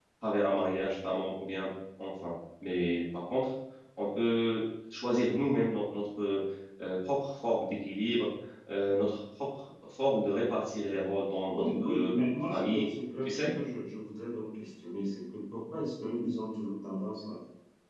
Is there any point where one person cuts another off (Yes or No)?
Yes